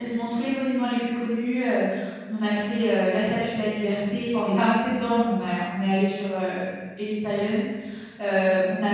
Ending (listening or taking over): listening